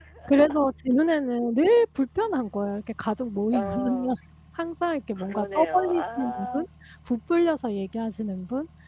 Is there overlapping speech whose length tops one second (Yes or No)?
Yes